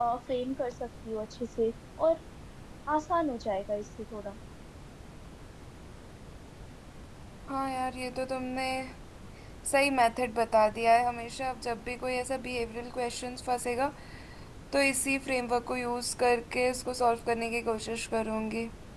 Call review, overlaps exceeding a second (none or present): none